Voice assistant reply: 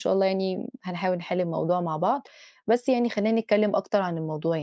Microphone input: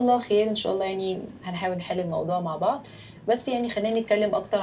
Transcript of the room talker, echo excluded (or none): none